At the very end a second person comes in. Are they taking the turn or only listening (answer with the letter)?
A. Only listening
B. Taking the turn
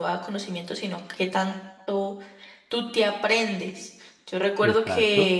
A